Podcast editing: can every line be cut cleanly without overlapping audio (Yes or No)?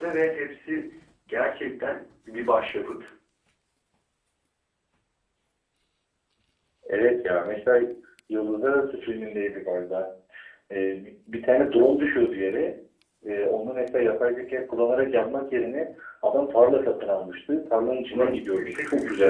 No